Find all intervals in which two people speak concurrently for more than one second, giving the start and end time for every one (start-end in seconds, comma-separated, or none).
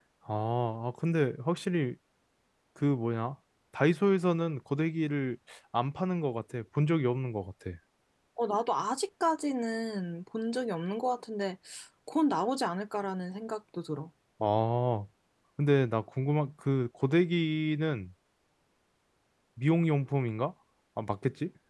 none